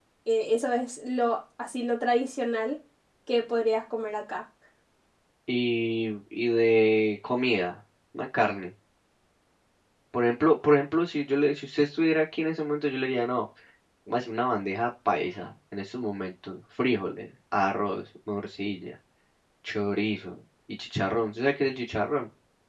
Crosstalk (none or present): none